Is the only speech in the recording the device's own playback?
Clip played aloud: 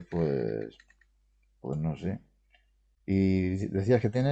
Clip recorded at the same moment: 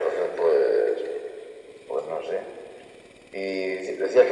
Yes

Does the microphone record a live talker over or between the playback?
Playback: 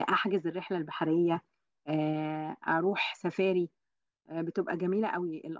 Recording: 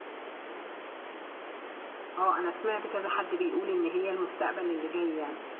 Yes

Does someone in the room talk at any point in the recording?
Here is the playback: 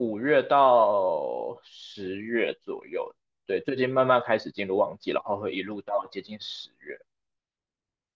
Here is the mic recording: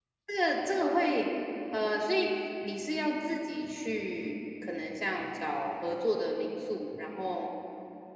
Yes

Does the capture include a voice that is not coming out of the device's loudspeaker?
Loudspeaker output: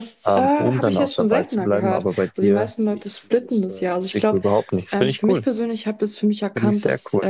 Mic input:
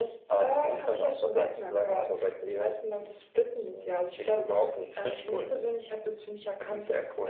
No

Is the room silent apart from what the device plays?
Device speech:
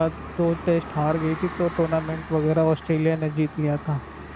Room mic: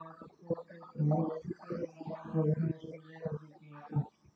Yes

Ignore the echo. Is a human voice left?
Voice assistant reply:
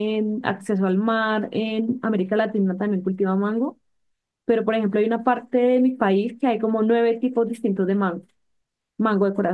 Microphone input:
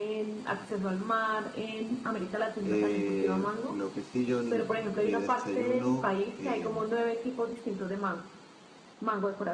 Yes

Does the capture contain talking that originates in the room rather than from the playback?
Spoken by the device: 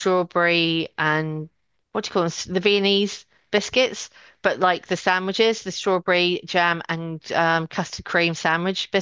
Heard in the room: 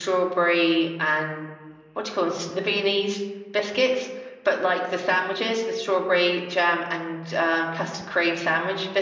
No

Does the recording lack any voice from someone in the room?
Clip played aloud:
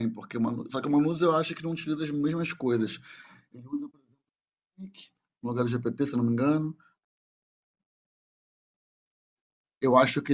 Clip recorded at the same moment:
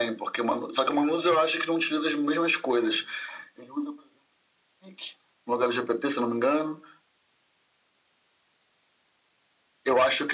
Yes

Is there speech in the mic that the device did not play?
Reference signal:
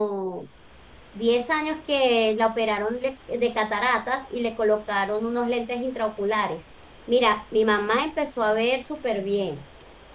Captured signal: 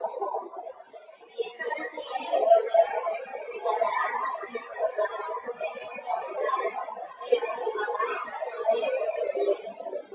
No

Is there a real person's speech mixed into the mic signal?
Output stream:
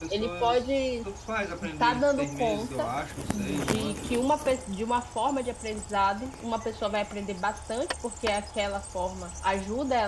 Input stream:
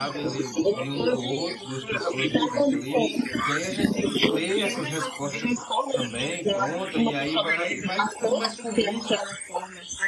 Yes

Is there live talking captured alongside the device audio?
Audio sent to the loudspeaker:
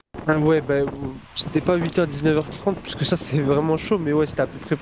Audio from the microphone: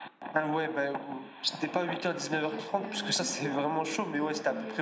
Yes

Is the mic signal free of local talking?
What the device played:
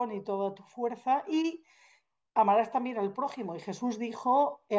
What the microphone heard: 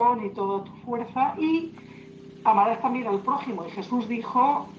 Yes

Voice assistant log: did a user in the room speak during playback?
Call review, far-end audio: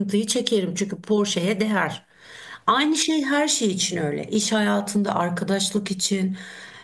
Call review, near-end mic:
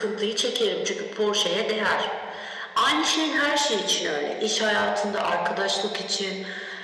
No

